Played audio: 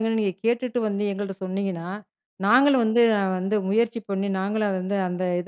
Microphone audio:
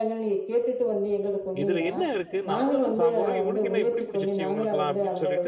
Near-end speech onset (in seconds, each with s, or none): 1.6 s